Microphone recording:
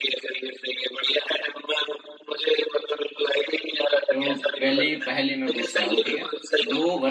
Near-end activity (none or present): present